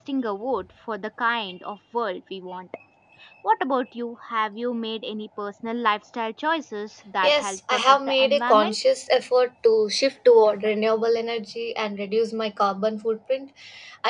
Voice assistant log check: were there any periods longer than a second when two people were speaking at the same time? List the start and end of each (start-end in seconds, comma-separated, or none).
7.2-8.8